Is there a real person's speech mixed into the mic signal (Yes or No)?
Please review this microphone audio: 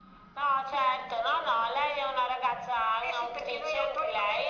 No